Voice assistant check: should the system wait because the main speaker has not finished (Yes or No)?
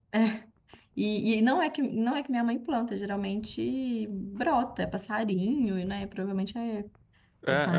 No